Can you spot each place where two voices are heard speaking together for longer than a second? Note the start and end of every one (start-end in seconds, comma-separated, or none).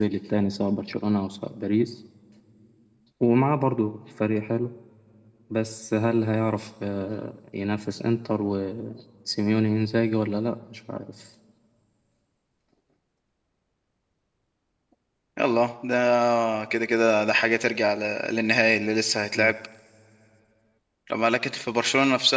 none